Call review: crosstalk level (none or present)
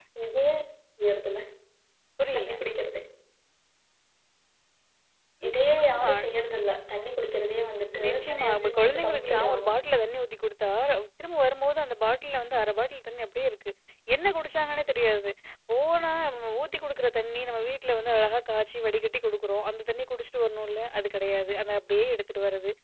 present